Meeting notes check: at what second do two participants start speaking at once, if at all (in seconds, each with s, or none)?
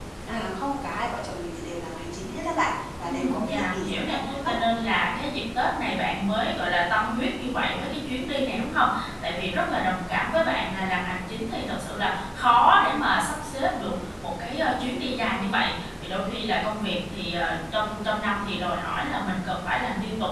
3.0 s